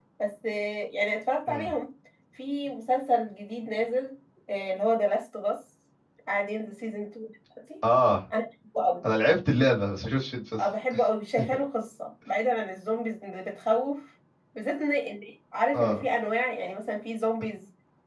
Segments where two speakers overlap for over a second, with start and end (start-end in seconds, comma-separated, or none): none